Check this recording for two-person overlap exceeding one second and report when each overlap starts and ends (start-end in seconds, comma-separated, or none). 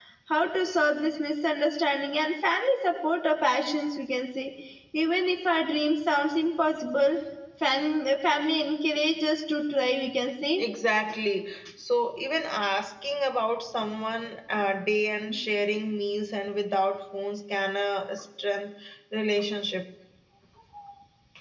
none